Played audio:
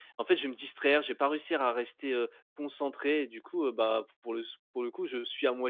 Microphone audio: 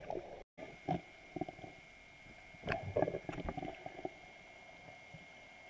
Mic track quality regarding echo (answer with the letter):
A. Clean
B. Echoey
A